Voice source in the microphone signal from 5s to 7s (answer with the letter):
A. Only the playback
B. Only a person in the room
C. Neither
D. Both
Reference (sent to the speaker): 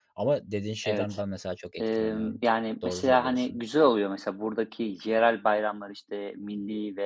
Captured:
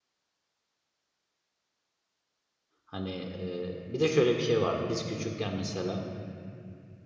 B